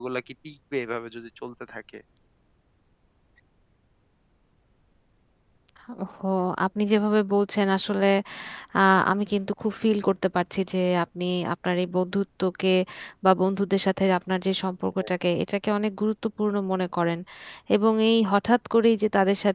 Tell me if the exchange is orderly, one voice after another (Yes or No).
Yes